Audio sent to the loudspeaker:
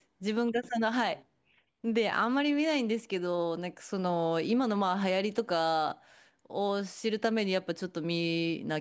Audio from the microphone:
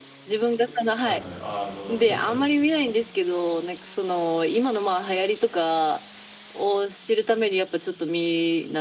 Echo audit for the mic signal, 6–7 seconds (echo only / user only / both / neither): echo only